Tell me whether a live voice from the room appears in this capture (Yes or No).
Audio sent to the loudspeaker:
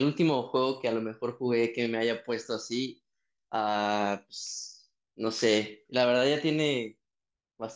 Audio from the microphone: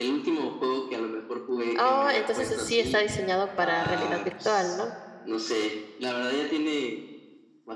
Yes